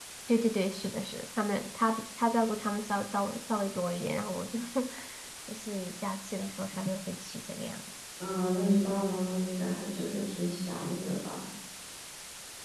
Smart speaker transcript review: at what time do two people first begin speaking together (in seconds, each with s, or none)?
none